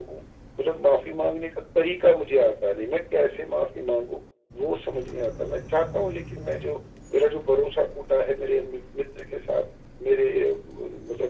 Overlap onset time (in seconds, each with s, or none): none